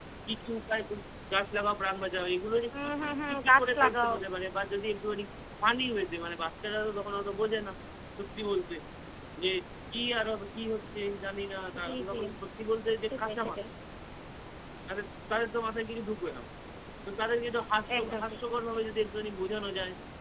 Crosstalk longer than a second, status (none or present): present